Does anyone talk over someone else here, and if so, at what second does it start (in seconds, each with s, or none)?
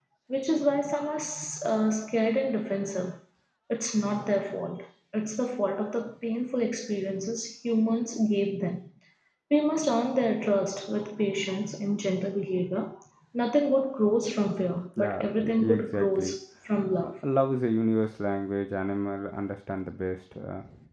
15.0 s